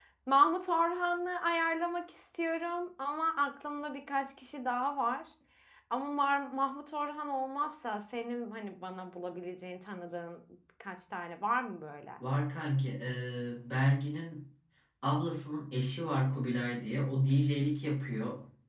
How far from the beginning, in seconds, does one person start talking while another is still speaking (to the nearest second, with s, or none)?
none